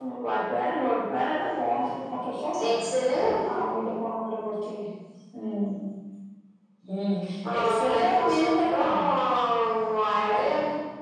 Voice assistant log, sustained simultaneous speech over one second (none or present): present